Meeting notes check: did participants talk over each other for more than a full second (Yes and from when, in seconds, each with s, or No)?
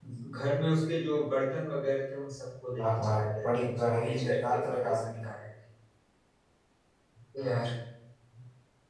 Yes, from 2.8 s